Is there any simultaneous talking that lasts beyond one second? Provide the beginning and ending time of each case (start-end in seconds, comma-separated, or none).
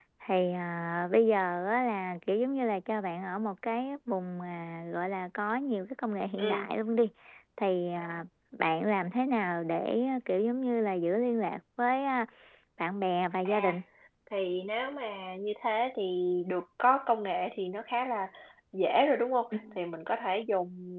none